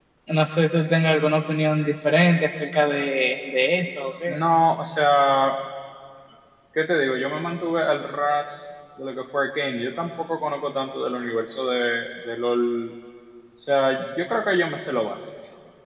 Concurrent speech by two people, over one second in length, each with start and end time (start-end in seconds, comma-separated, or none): none